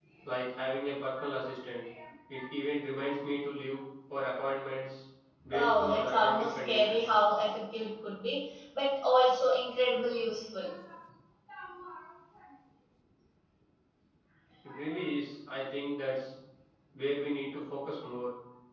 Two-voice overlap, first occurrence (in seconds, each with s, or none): 5.5 s